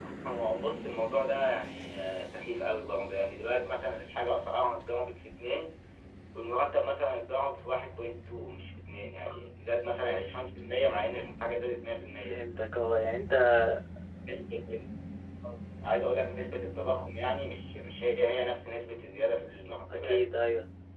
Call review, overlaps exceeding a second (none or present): none